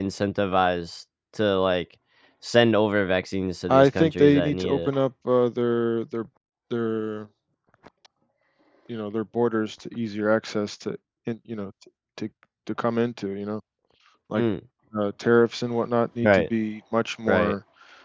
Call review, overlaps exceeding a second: present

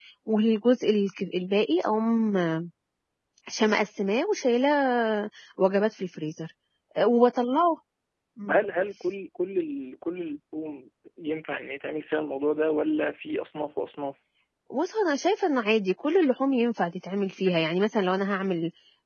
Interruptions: none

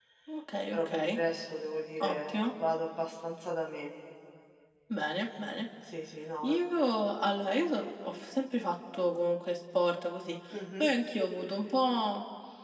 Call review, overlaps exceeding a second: none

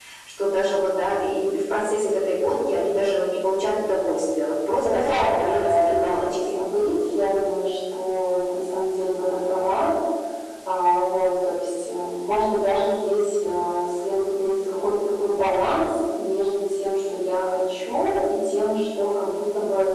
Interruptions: present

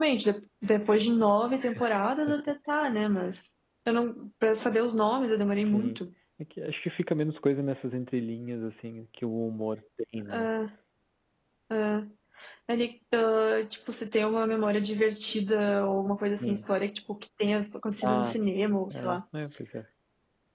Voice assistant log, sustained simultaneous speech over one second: none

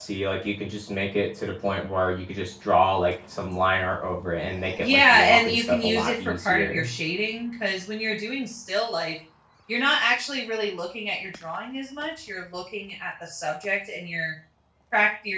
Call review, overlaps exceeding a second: present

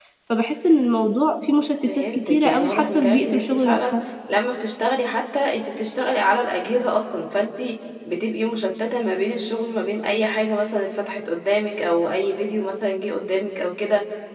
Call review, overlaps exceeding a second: present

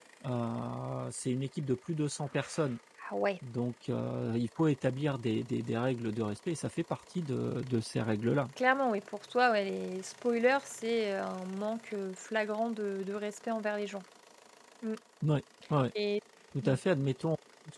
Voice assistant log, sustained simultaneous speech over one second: none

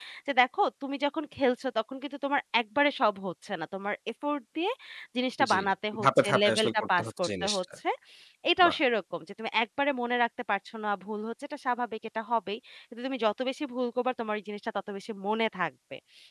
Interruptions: present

